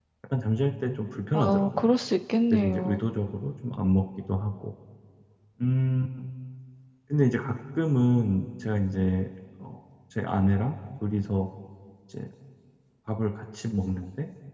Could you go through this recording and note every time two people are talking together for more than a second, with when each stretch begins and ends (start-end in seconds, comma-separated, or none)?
none